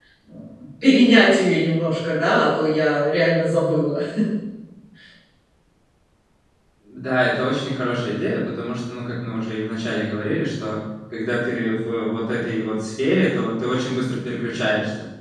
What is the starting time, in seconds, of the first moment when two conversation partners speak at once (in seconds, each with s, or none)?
none